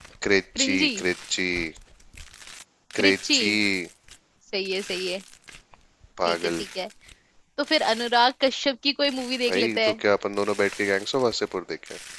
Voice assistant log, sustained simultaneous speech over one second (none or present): none